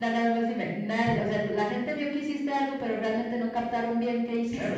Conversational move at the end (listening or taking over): taking over